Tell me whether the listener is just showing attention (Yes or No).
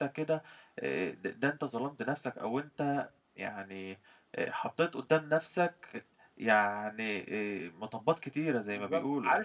No